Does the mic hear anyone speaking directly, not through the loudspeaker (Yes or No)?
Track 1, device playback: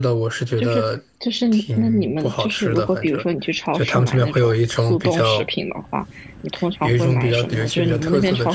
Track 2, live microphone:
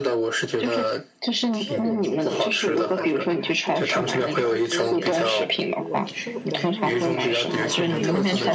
Yes